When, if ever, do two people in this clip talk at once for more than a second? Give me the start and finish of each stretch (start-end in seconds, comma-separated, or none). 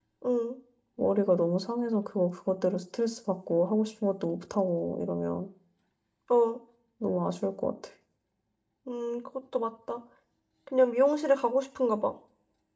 none